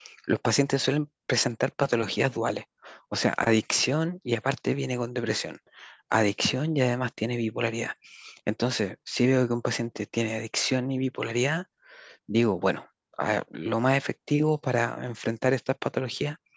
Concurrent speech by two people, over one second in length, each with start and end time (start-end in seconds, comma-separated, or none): none